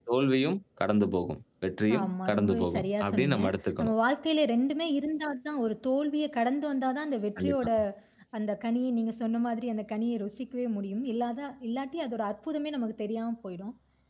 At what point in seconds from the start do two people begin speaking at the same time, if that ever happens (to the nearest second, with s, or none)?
2 s